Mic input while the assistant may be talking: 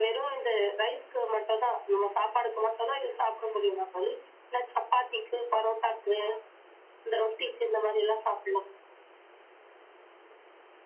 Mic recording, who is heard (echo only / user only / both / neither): echo only